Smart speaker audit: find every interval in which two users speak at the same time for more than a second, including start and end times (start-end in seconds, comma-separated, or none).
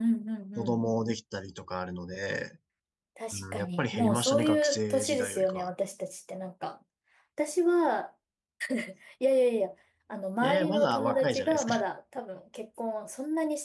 3.3-5.7, 10.4-11.7